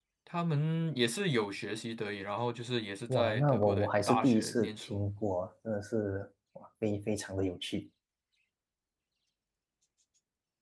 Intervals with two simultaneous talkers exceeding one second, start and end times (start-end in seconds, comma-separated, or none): 3.1-5.0